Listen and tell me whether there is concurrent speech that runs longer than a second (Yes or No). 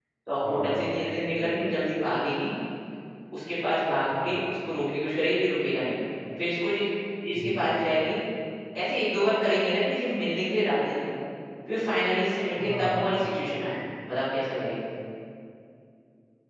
No